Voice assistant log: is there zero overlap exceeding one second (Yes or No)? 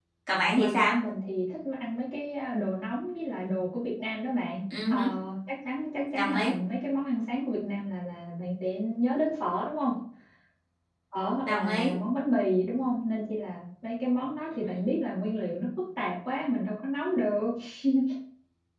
Yes